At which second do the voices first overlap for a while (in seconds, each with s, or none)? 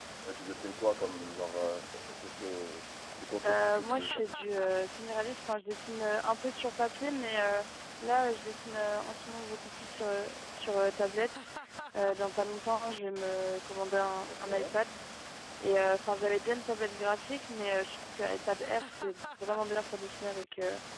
3.4 s